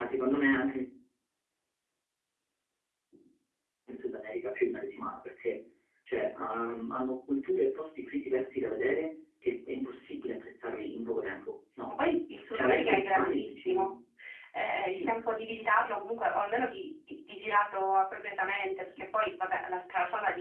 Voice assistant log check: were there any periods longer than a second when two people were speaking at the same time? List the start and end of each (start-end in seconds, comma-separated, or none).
12.5-13.9